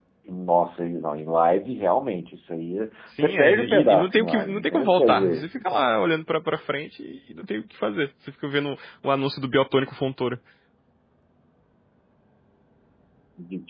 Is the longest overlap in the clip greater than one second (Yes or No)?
Yes